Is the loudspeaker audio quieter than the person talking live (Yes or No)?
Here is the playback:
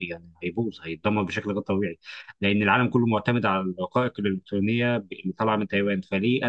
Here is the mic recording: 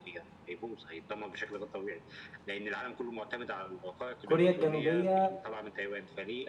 Yes